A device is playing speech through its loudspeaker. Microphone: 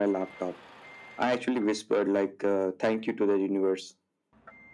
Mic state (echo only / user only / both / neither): echo only